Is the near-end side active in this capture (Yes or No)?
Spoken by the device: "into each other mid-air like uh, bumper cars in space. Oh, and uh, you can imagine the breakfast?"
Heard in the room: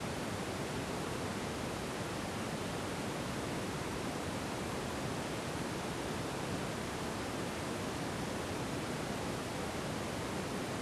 No